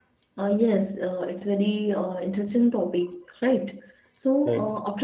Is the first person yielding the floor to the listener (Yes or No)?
No